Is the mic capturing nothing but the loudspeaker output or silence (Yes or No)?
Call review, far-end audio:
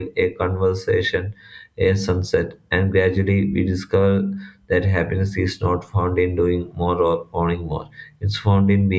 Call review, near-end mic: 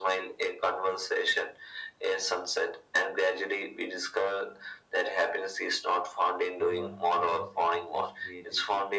No